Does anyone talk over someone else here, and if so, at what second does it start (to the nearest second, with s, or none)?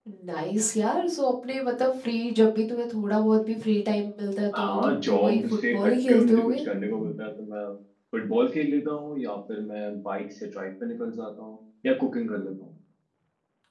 5 s